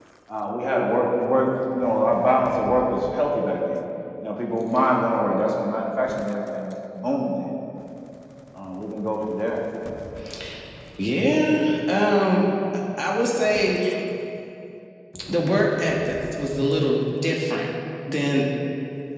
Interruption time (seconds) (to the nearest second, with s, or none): none